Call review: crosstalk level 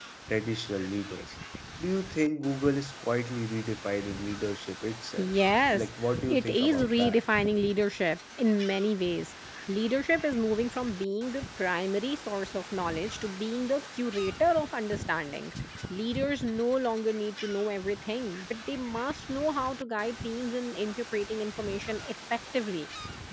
present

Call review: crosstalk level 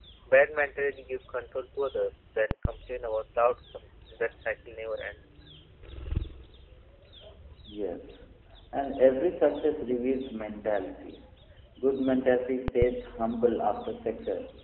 none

